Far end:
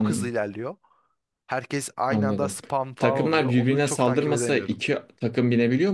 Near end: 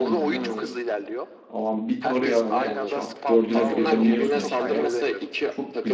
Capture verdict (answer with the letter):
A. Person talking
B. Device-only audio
A